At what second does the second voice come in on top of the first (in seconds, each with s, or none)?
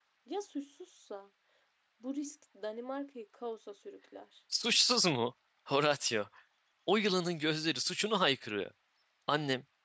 none